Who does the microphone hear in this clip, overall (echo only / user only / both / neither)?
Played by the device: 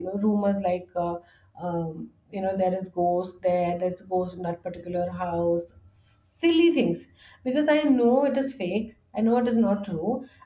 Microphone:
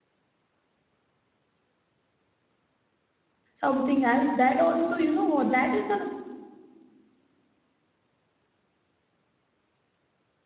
user only